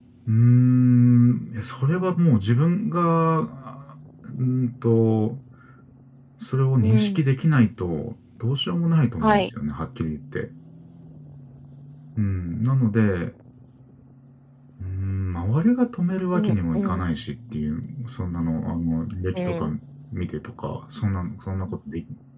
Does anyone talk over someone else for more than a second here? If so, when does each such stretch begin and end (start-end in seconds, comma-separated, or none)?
none